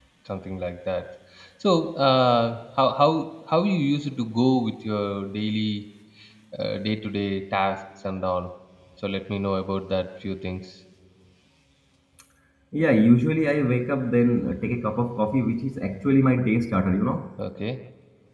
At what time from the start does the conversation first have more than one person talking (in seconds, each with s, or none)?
none